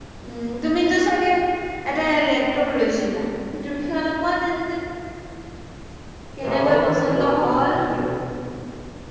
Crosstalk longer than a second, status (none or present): present